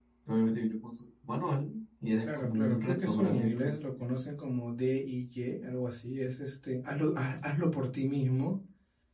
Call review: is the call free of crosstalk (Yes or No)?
No